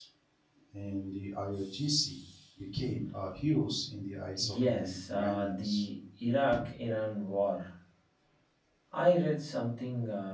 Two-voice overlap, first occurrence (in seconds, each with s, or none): 4.7 s